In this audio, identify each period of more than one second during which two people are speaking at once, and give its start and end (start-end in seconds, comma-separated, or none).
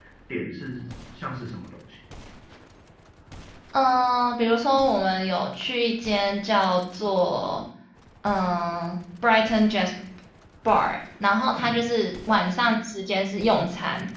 none